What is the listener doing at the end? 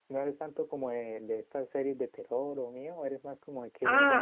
taking over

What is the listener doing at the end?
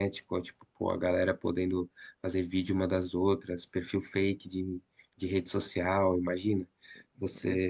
taking over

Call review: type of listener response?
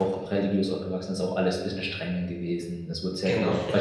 listening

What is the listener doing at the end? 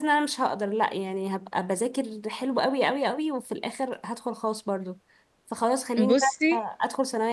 listening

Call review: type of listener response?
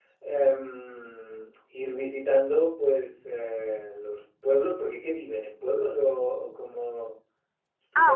taking over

